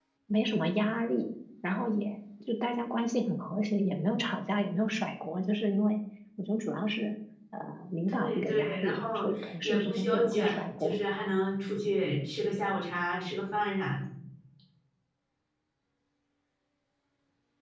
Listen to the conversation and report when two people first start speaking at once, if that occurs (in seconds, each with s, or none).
8.1 s